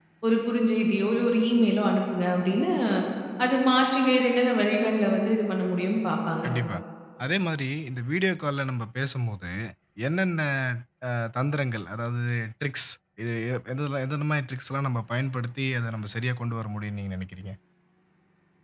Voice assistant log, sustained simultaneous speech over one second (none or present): none